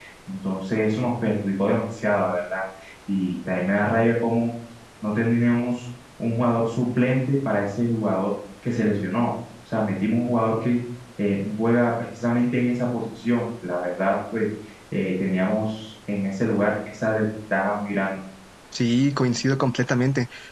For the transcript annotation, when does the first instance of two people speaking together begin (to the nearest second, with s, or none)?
none